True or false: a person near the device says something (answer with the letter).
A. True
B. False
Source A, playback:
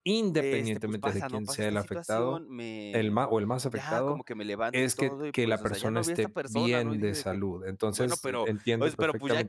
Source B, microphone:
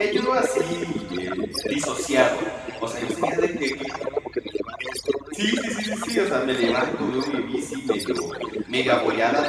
A